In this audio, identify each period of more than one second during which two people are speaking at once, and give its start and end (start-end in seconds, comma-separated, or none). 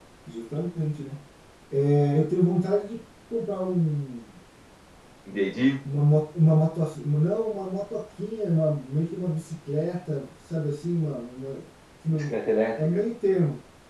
none